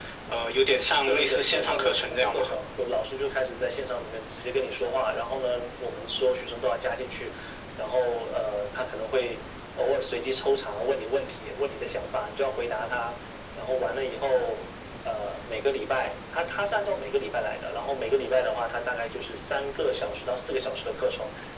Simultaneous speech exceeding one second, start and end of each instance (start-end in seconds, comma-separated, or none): 1.1-2.5